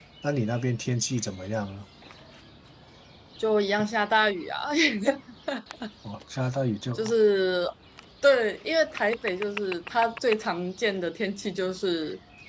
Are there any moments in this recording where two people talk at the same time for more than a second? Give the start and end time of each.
none

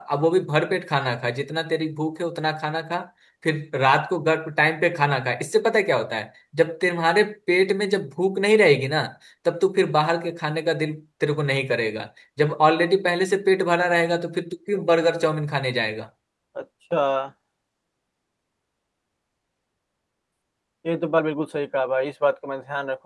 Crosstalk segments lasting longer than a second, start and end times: none

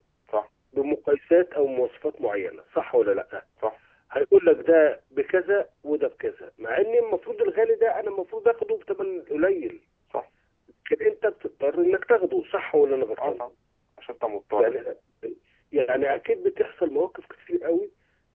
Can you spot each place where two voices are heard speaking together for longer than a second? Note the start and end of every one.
none

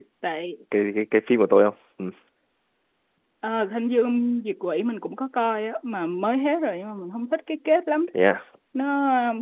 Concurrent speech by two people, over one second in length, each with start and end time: none

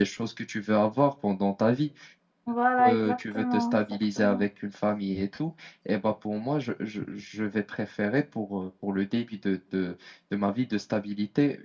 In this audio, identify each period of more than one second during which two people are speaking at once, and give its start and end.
2.8-4.5

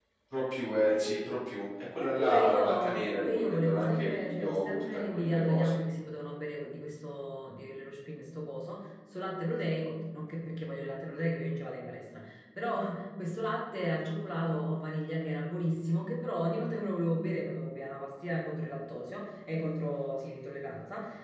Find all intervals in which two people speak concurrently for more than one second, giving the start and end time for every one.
2.0-5.8

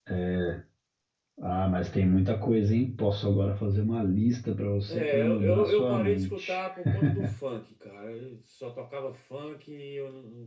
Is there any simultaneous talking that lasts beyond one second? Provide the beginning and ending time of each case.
4.9-6.6

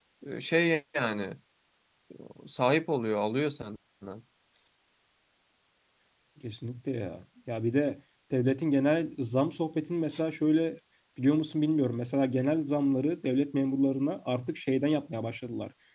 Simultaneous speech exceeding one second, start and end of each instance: none

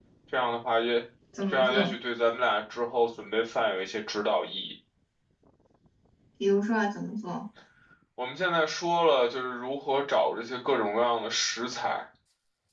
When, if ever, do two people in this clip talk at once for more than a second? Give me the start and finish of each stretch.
none

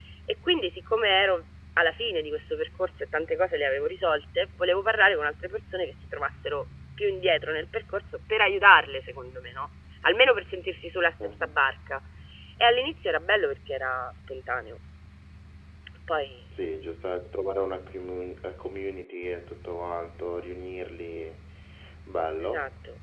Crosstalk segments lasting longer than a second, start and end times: none

